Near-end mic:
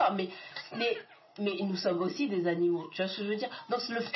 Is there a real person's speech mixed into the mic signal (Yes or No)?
No